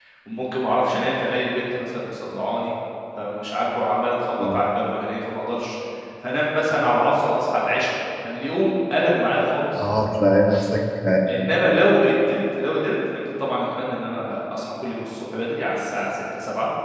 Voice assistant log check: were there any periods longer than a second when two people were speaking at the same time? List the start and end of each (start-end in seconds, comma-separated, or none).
none